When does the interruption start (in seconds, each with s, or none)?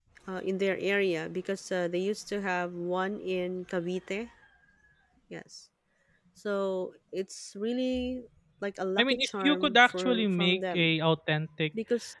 9.0 s